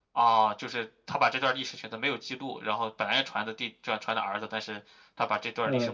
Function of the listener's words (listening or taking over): taking over